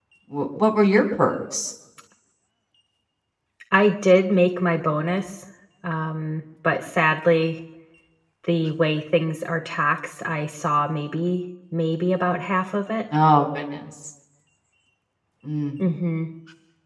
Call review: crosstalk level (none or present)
none